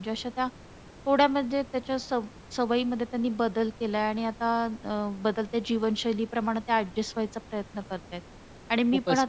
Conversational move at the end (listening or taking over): listening